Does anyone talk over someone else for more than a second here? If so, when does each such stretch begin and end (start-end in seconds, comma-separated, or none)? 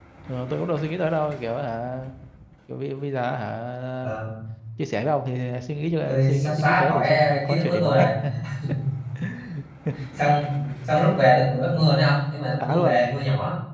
6.1-8.1